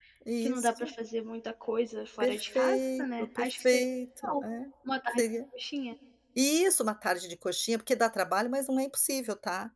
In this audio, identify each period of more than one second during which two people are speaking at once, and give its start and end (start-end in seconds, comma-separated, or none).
2.2-3.8